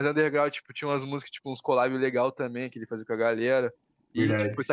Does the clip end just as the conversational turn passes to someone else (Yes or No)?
No